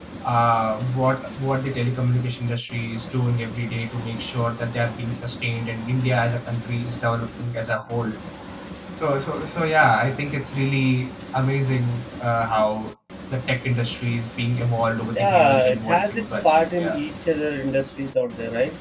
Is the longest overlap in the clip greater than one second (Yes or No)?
Yes